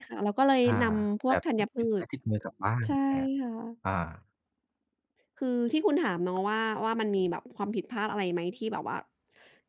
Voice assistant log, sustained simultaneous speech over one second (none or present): none